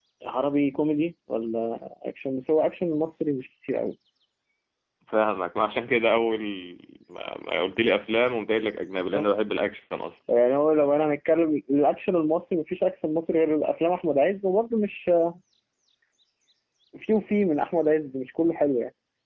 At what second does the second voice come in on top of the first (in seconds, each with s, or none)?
none